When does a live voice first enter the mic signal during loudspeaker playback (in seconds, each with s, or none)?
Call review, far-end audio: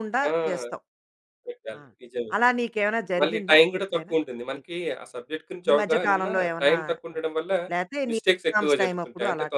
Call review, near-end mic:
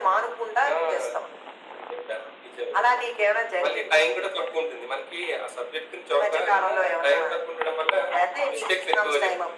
none